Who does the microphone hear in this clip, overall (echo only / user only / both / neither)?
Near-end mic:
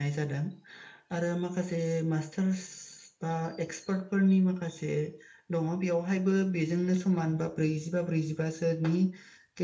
user only